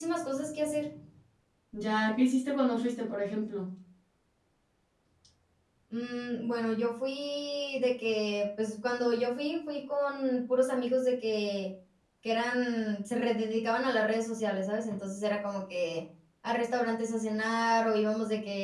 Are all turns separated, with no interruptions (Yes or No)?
Yes